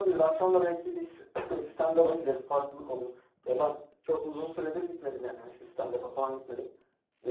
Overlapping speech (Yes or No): No